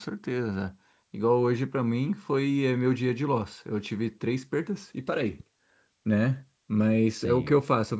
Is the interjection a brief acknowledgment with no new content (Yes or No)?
Yes